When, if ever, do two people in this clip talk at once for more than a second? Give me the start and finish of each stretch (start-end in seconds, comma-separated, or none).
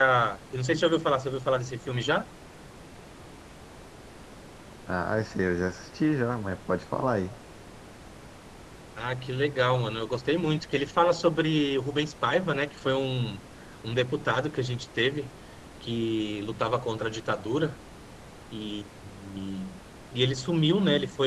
none